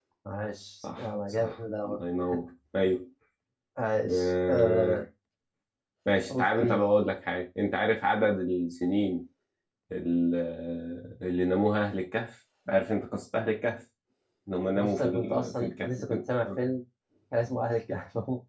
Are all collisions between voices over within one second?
No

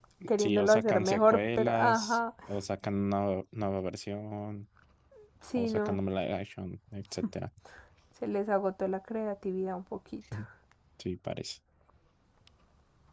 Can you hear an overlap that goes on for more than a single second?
Yes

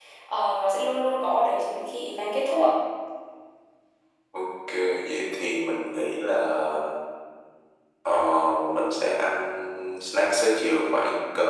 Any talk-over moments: No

